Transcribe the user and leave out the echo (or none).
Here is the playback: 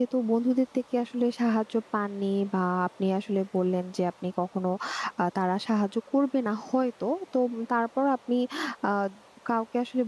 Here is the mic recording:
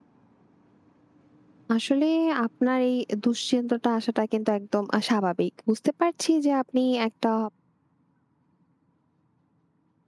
আসলে আপনার এই দুশ্চিন্তাটা আসাটা কিন্তু একদম আ স্বাভাবিক। বুঝতে পারছি যে আপনি একটা